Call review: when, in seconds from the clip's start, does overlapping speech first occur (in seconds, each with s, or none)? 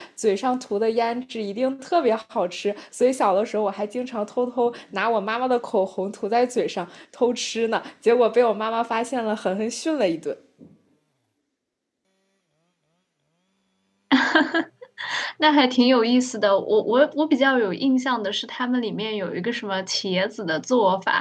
none